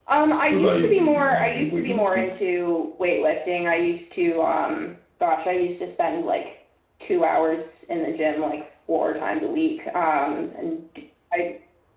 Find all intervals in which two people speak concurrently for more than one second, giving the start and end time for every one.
0.5-2.3

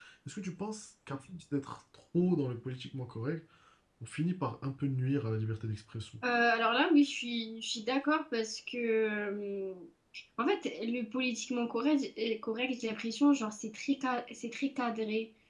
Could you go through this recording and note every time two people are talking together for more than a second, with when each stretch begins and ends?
none

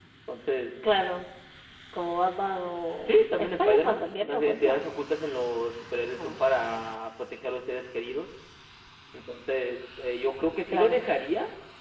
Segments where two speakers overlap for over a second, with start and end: 3.1-4.9

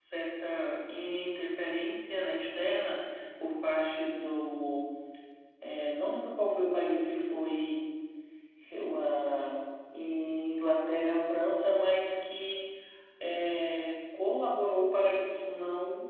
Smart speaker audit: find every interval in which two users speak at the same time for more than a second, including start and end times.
none

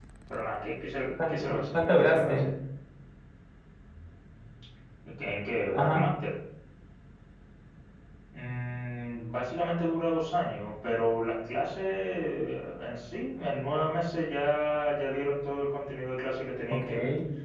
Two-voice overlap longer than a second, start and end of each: 1.3-2.5

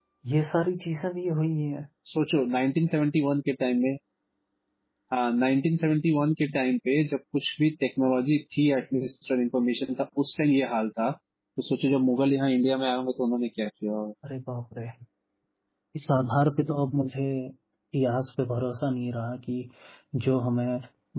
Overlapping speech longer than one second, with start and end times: none

